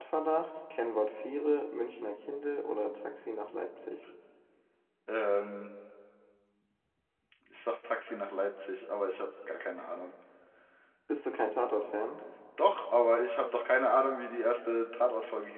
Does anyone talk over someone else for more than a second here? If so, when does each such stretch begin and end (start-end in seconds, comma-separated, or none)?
none